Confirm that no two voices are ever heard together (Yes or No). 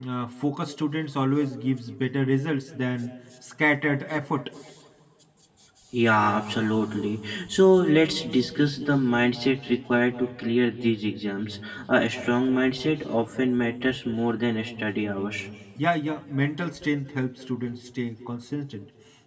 Yes